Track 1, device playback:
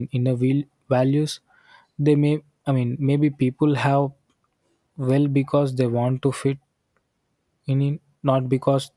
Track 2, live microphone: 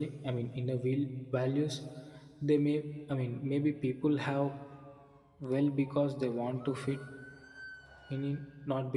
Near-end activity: none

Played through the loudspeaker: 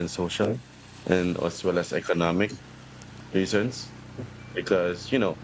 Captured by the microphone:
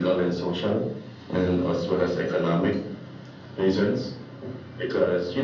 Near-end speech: none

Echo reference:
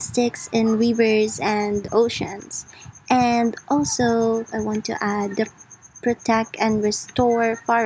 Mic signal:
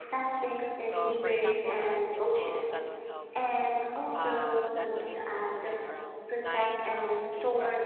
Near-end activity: present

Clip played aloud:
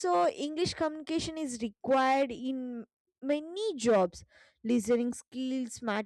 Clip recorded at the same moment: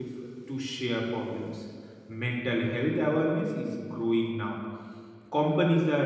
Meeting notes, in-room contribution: present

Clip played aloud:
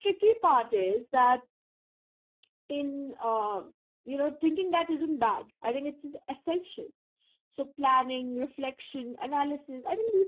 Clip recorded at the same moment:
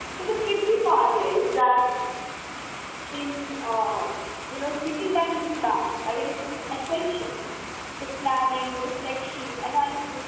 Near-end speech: none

